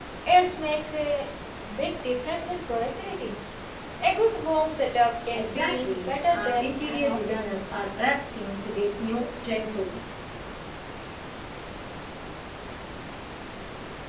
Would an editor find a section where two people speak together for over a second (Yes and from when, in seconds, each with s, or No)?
Yes, from 5.3 s